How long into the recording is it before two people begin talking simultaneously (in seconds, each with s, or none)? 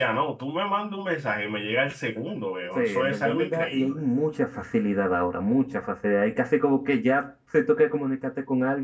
2.8 s